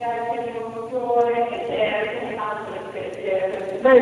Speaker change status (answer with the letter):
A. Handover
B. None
A